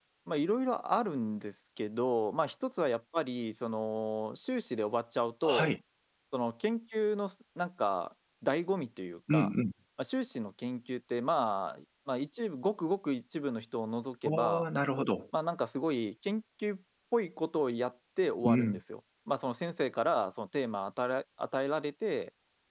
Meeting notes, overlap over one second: none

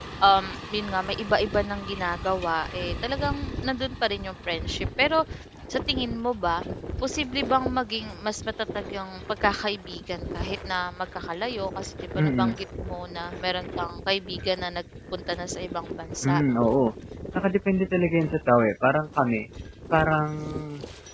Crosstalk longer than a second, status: none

